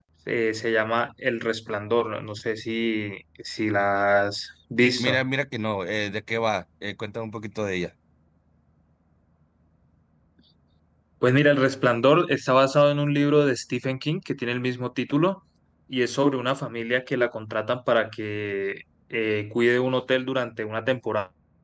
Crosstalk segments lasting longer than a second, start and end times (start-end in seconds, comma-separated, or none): none